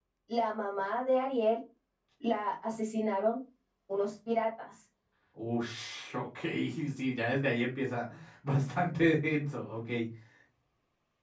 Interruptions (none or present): none